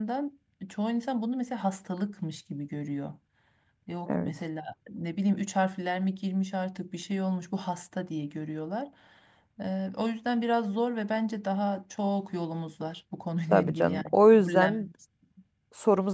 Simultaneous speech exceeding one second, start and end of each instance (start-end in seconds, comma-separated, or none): 13.5-14.9